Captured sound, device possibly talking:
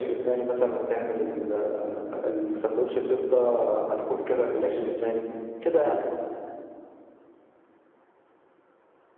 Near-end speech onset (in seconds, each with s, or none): none